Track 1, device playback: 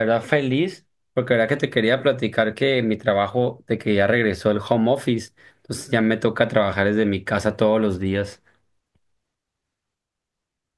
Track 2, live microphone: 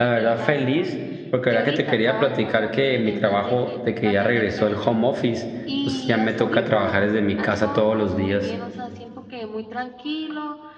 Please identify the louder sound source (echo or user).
echo